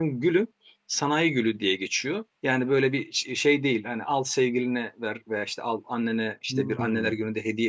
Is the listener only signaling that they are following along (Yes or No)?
Yes